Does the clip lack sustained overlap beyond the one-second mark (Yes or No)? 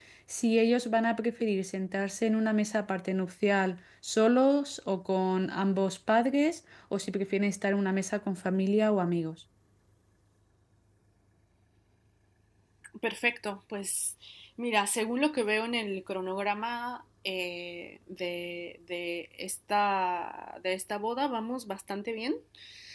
Yes